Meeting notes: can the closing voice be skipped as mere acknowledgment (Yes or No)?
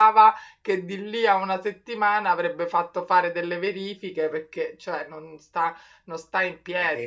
Yes